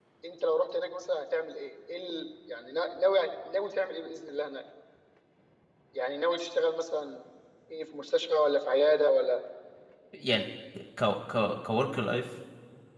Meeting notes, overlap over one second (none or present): none